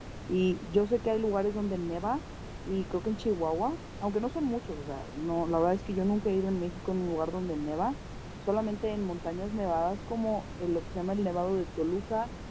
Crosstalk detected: No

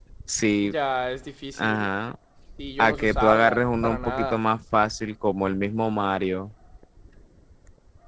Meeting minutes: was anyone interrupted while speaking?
Yes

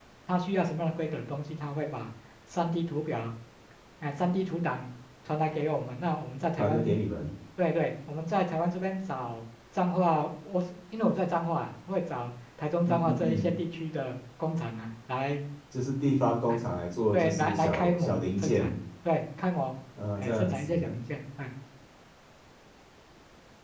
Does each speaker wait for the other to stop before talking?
No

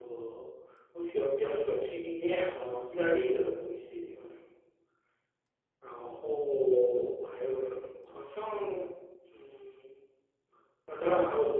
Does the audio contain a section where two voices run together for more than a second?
No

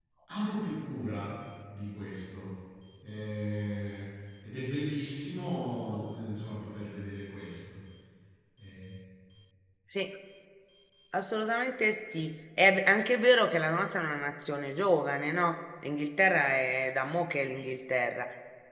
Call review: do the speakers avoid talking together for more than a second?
Yes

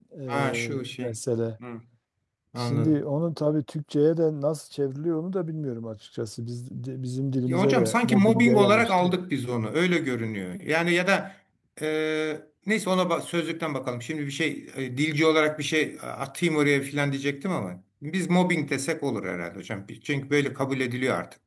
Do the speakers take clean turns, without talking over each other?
No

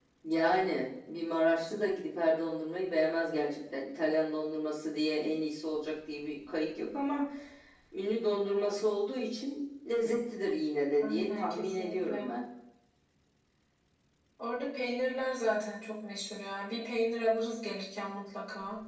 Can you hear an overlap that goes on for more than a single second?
Yes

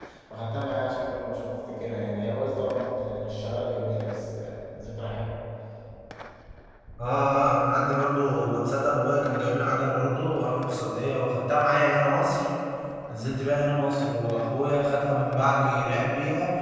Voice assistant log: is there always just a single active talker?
Yes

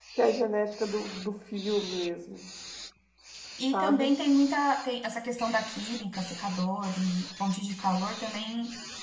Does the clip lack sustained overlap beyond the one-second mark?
Yes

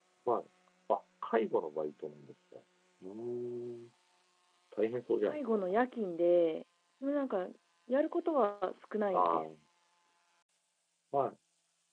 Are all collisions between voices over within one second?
Yes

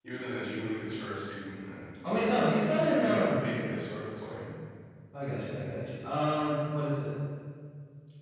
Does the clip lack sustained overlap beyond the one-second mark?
No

